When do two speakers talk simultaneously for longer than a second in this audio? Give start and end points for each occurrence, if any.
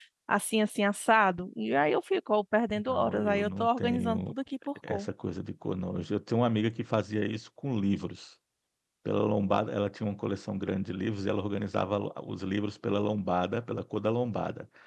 2.9-4.3

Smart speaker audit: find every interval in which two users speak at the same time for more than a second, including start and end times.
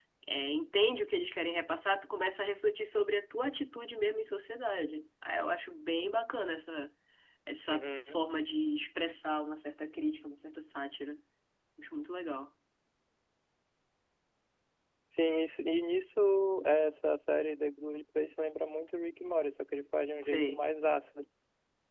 none

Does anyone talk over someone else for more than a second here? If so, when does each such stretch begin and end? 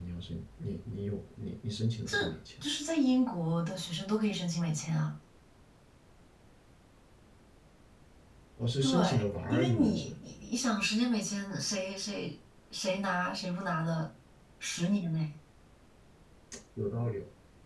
8.8-10.1

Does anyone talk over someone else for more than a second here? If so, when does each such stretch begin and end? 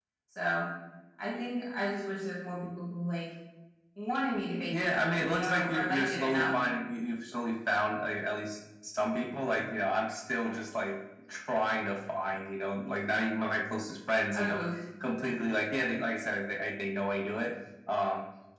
4.7-6.4

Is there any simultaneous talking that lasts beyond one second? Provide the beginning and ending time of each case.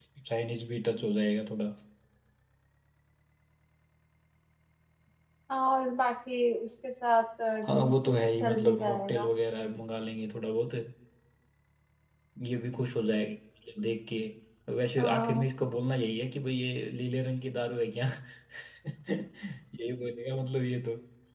7.6-9.3

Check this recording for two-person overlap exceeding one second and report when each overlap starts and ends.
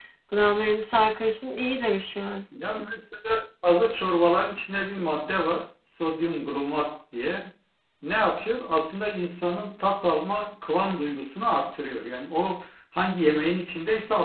none

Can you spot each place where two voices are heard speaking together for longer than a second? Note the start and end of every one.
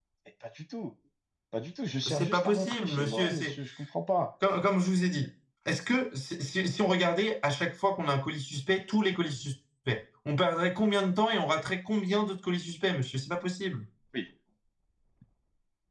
2.1-3.6

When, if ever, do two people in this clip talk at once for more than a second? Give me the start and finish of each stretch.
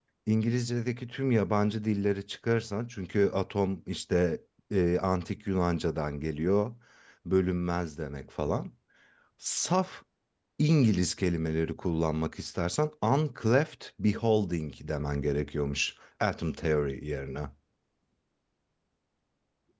none

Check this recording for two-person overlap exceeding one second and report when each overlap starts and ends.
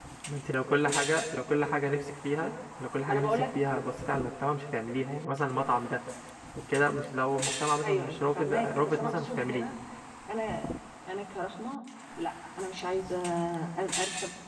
7.8-9.7

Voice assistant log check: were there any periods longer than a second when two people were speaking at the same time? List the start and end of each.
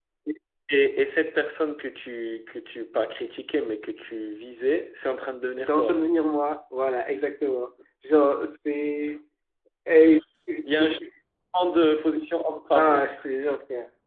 none

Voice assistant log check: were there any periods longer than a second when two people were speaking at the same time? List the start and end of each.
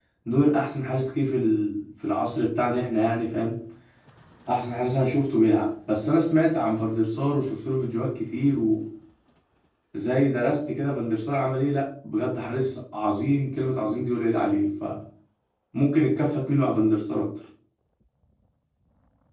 none

